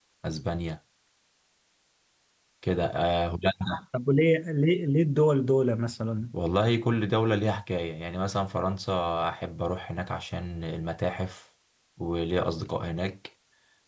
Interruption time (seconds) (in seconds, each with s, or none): none